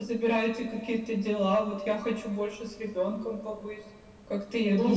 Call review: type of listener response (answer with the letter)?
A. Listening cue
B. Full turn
B